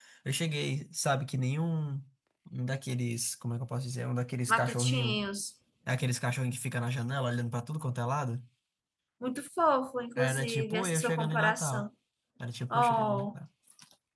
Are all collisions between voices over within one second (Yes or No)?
No